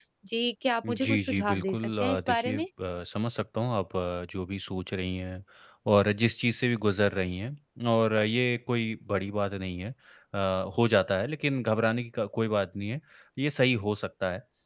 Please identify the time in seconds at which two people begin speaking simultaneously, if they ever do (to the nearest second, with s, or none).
1 s